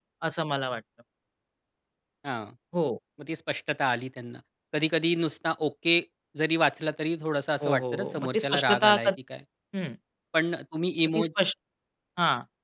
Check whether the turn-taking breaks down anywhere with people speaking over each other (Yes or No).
Yes